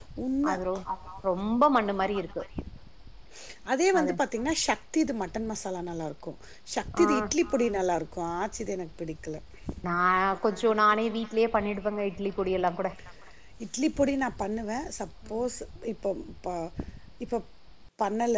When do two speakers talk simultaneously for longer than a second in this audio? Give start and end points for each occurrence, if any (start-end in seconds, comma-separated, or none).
none